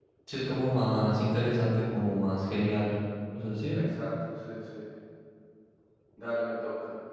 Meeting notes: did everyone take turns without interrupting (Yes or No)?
Yes